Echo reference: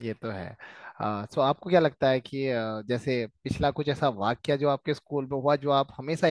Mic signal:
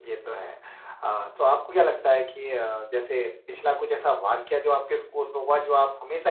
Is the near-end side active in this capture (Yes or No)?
No